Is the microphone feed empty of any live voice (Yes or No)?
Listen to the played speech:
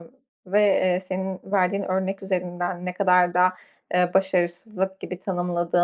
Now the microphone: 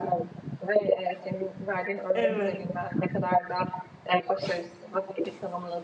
No